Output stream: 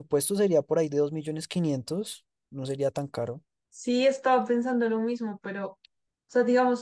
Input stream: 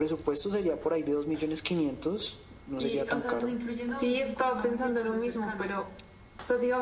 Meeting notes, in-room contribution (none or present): present